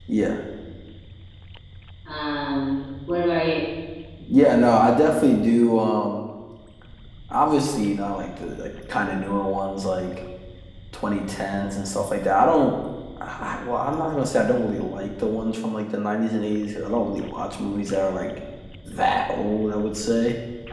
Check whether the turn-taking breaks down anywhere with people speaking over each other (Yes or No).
No